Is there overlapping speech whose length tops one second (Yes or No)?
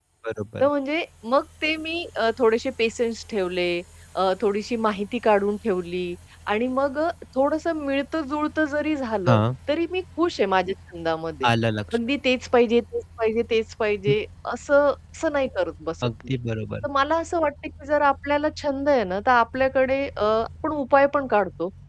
No